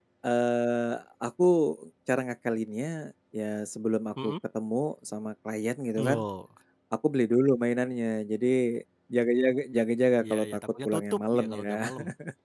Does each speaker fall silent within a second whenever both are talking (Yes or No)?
No